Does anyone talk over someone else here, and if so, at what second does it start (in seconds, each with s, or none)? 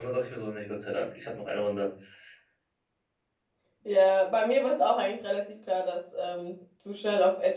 none